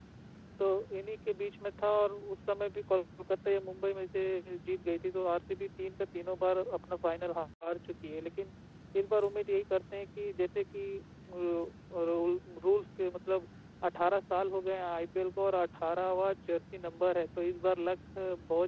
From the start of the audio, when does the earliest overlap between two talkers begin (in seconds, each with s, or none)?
none